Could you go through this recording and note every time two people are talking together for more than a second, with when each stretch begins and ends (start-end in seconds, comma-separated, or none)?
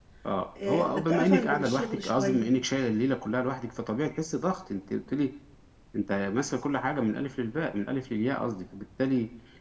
0.6-2.5